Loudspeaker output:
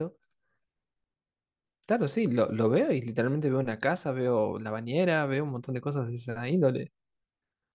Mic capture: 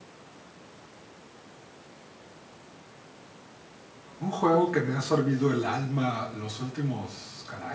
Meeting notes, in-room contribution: present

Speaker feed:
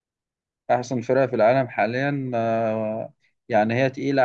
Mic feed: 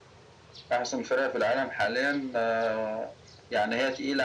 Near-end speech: none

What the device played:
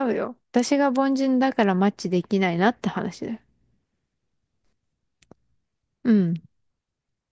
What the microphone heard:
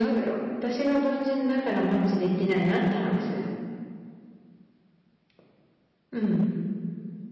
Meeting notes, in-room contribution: none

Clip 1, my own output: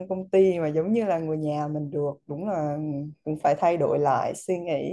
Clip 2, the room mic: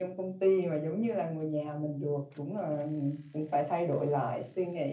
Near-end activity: none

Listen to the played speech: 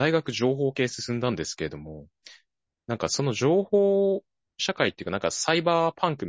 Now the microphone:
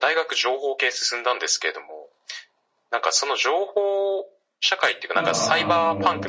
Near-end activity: present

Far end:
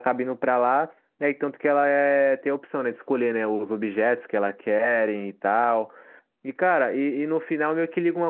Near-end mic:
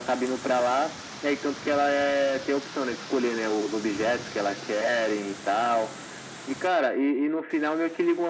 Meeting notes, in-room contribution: none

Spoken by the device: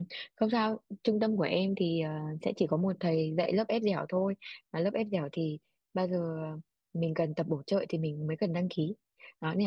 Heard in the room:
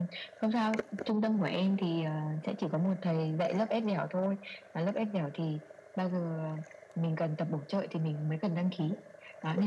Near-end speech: none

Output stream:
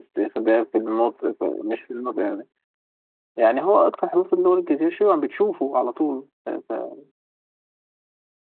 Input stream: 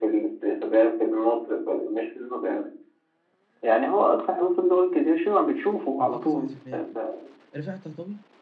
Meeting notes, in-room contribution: present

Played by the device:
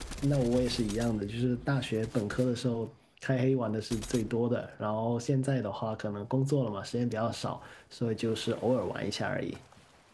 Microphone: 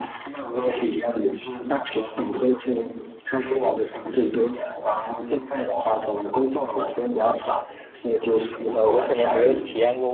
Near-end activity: present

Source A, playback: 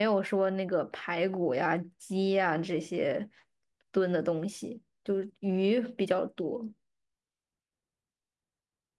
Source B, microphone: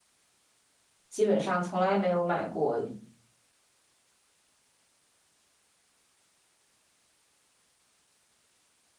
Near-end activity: present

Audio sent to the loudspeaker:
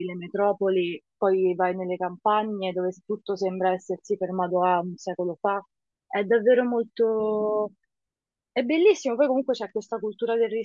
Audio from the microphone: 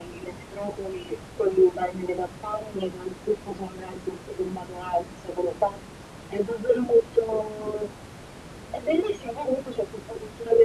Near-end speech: none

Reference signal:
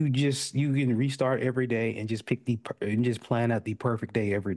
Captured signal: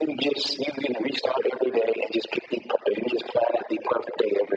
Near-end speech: none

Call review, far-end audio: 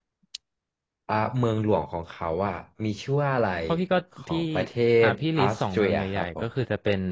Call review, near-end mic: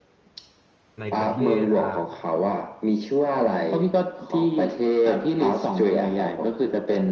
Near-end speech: present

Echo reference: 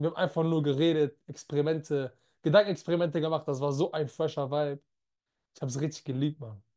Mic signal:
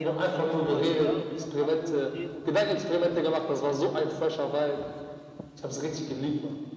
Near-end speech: present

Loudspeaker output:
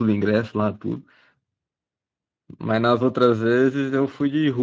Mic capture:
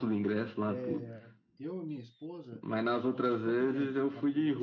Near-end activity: present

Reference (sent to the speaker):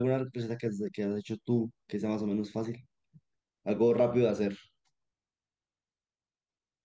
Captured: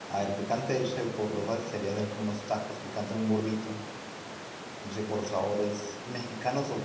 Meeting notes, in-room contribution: present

